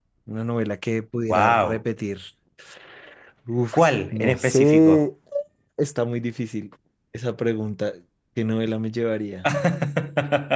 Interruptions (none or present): present